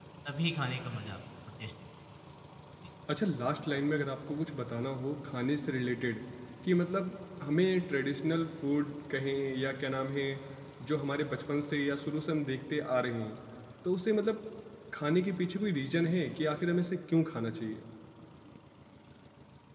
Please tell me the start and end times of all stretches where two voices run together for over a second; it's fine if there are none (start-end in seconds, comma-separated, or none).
none